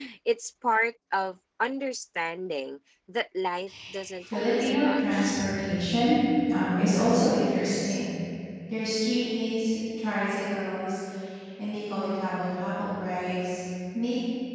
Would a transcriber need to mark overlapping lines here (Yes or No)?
Yes